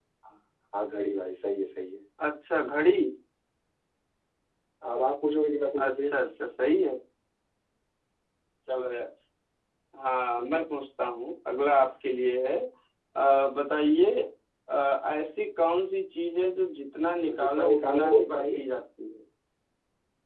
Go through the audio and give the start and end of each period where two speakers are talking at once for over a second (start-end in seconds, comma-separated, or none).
17.3-18.6